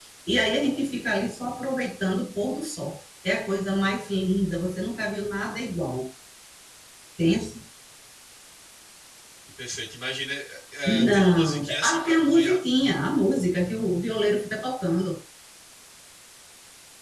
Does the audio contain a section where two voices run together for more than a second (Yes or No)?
Yes